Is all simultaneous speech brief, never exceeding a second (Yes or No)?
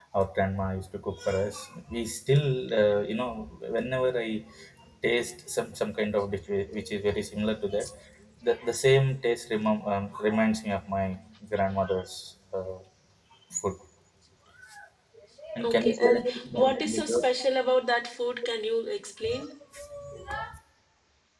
No